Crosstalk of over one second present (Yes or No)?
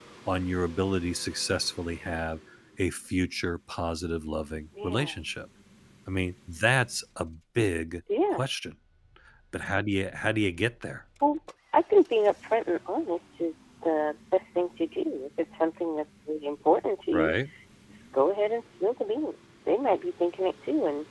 No